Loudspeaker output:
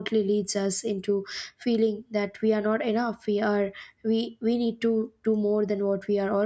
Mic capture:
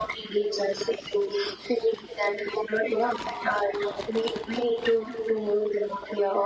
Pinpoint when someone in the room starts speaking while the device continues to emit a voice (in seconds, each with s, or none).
none